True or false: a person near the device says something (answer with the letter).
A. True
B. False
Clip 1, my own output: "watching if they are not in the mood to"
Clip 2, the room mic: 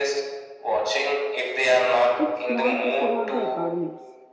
A